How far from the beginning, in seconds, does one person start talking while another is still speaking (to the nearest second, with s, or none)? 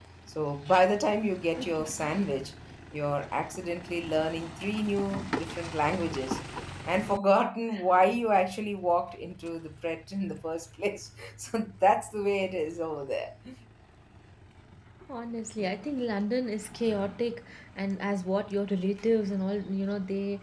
none